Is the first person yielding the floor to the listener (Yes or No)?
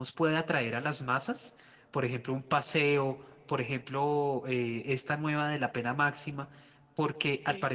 No